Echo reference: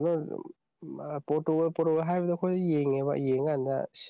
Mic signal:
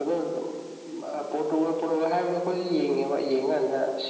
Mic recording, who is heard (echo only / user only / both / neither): echo only